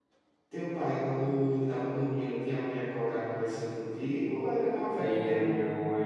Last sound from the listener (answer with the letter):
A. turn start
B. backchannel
A